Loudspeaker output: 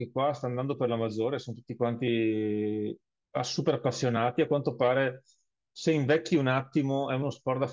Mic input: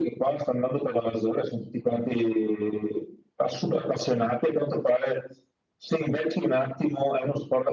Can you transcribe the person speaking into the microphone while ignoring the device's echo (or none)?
none